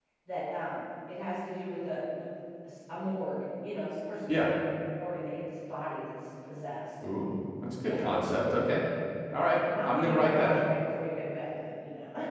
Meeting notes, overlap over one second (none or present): present